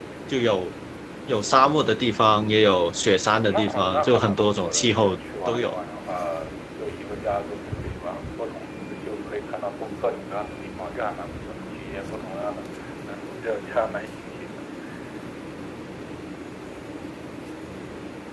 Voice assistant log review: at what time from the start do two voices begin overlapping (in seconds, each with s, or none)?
3.3 s